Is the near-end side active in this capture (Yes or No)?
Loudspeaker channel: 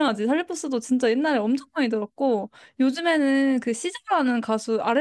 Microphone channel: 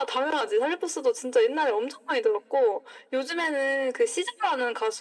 No